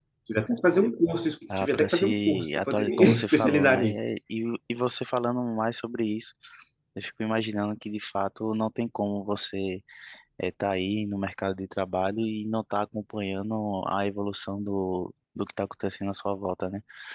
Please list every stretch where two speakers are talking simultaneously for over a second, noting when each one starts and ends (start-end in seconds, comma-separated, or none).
1.6-4.0